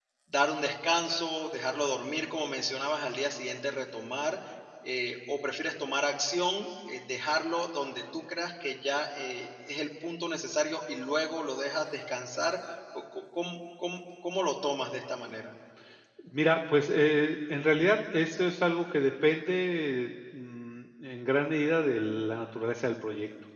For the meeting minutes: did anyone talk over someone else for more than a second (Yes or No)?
No